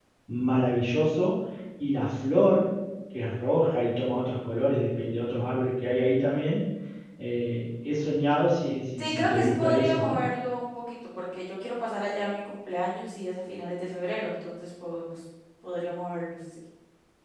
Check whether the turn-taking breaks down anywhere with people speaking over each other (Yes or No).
Yes